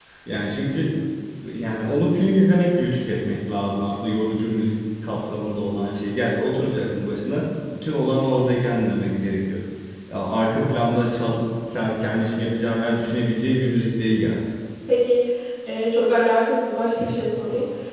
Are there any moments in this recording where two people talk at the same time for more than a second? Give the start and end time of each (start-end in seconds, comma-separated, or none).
none